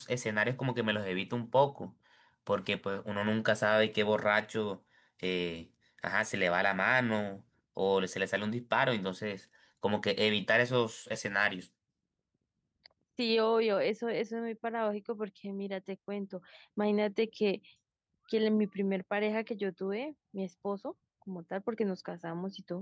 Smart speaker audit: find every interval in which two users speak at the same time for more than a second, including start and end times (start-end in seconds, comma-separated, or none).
none